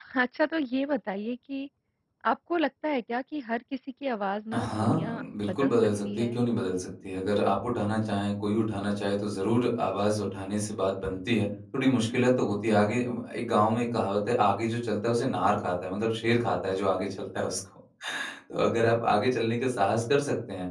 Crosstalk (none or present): present